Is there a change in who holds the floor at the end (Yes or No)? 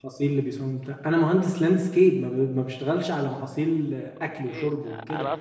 Yes